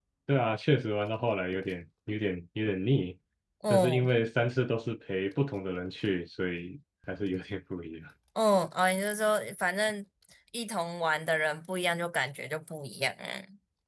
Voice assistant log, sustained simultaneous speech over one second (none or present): none